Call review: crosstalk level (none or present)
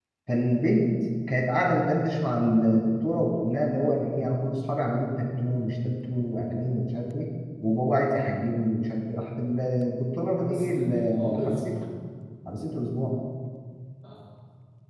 present